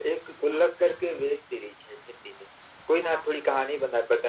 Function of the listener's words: listening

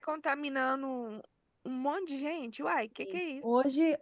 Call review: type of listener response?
taking over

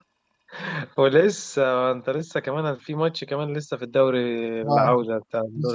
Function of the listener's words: taking over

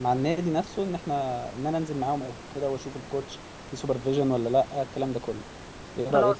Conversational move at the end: taking over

